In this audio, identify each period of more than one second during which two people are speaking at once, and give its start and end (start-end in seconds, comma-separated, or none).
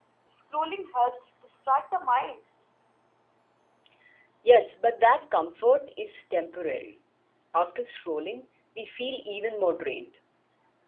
none